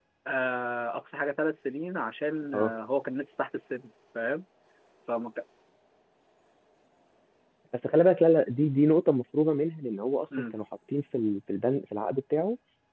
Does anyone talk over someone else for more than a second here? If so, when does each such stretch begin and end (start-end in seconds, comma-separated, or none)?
none